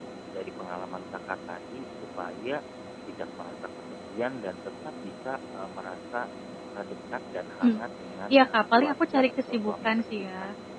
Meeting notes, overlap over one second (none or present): present